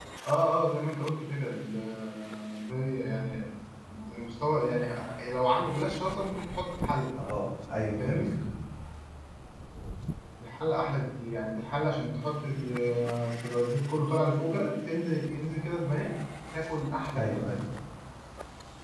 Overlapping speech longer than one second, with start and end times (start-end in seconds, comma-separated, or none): none